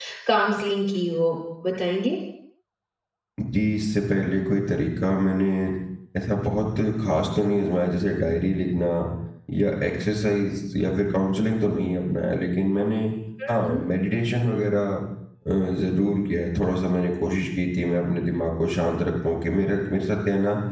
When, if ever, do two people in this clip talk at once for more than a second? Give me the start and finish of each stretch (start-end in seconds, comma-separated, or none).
none